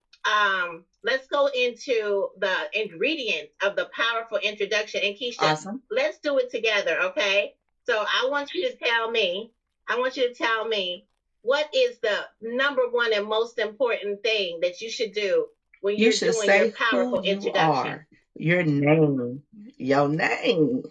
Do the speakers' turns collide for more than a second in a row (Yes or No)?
Yes